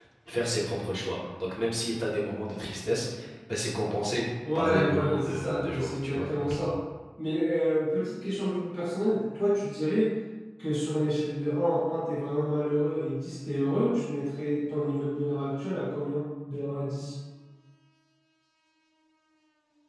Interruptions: present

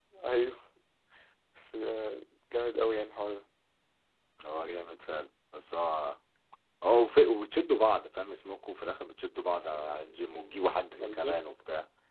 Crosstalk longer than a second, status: none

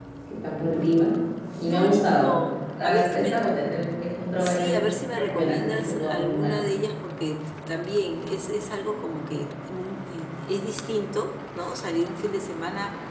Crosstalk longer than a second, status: present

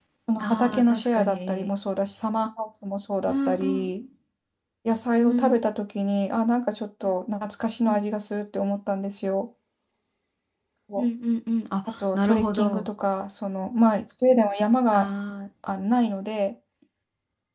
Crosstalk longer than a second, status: present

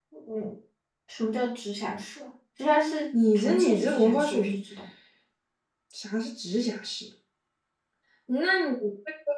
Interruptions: present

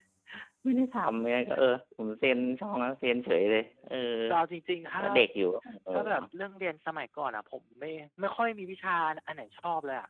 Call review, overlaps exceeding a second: none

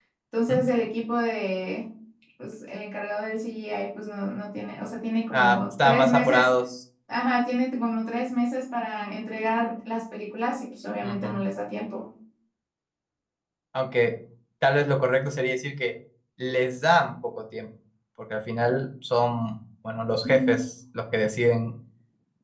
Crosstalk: present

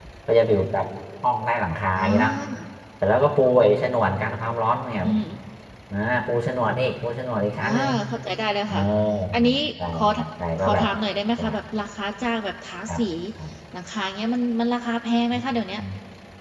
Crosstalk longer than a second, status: none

